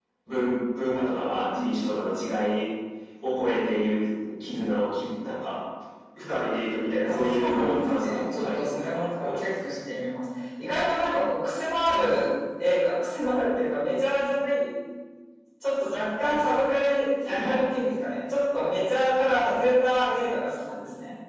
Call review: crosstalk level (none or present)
present